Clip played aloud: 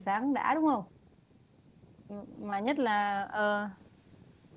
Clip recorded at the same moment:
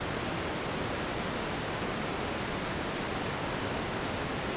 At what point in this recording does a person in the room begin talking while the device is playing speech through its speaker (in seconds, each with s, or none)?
none